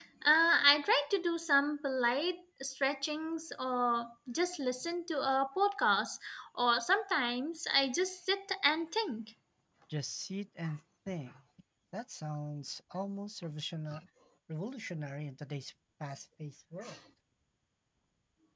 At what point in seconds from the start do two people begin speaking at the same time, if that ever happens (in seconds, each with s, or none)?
none